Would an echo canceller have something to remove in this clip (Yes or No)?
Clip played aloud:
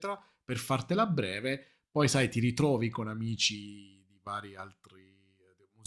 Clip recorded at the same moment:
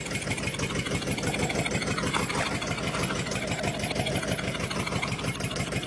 No